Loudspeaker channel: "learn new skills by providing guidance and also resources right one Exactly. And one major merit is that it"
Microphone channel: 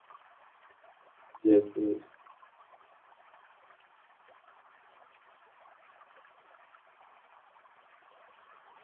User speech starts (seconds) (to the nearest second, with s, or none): 1 s